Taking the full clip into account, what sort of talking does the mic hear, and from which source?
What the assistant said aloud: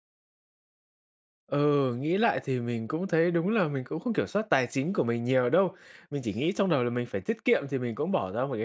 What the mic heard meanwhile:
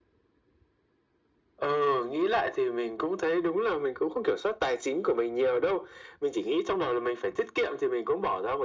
echo only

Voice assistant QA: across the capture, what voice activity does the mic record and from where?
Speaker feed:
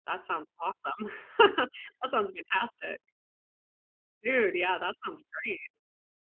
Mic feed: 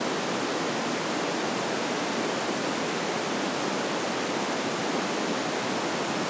neither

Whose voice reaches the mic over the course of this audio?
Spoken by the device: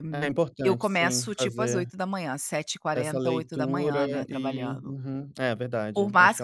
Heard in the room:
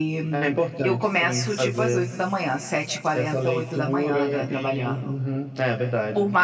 echo only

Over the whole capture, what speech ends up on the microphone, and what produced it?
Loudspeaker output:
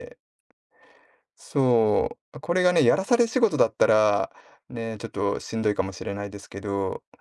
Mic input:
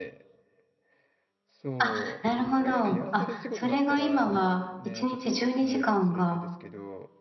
both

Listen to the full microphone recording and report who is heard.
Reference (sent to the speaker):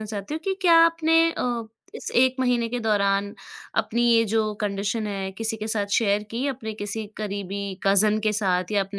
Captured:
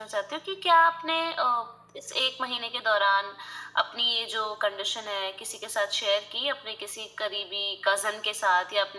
echo only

